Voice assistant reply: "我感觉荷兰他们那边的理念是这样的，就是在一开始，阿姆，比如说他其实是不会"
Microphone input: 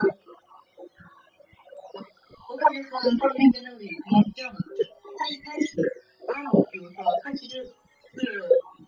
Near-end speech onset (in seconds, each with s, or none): none